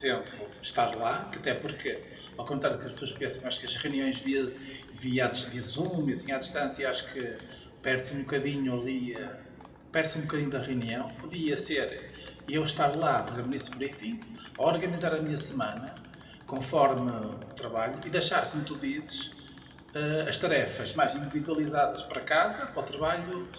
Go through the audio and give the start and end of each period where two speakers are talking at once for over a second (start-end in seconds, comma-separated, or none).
none